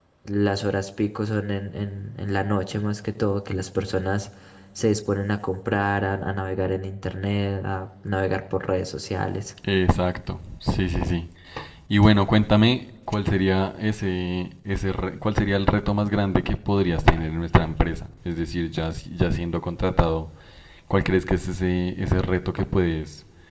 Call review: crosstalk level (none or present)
none